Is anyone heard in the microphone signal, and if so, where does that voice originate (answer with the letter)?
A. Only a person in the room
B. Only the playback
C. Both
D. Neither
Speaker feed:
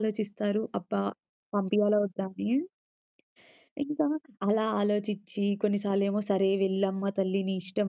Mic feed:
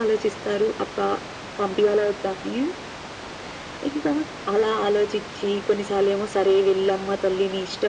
B